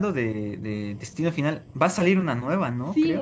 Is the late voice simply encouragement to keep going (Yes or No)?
No